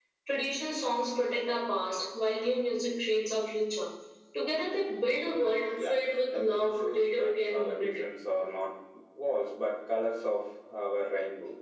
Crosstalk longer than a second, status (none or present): present